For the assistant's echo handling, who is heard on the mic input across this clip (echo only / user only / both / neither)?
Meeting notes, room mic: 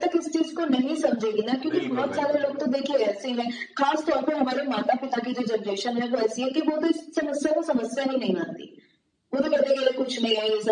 both